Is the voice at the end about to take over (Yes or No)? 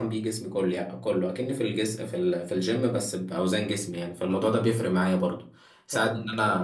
No